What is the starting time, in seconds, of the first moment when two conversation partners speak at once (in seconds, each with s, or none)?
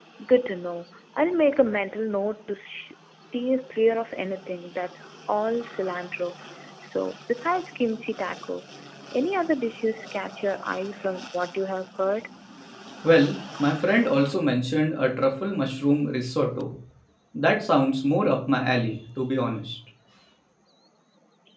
none